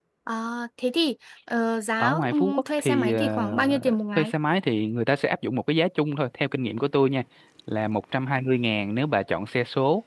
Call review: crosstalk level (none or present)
present